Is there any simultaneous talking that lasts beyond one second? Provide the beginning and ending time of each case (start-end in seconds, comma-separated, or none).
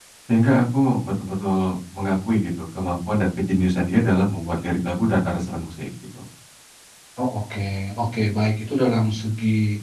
none